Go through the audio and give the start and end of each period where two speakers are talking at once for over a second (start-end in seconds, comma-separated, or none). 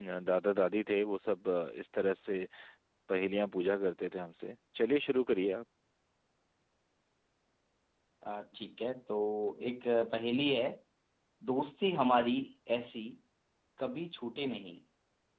none